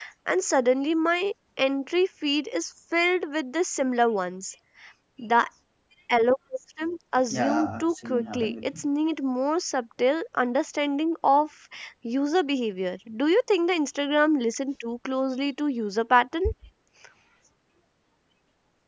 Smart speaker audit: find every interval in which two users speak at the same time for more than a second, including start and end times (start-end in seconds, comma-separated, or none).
7.3-8.6